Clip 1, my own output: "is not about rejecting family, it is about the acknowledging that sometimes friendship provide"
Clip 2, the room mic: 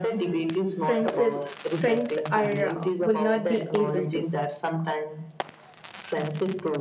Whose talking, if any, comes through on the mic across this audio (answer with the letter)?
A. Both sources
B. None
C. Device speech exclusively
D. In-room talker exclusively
A